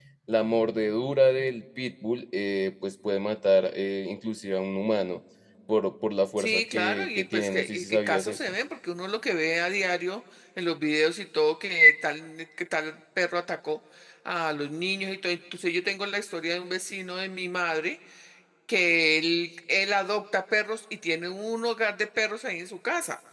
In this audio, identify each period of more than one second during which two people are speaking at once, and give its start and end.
6.4-8.5

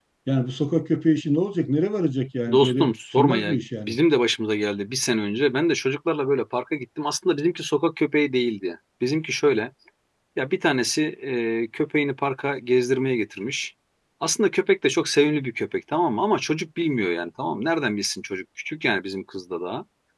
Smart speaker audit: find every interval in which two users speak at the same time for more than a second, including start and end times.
2.5-4.0

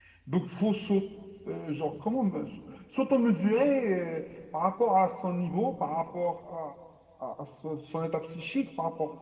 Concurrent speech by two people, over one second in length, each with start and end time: none

